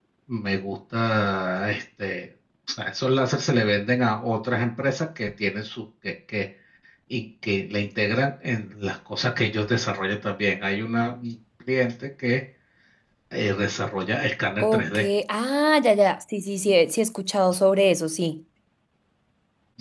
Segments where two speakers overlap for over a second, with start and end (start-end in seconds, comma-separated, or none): none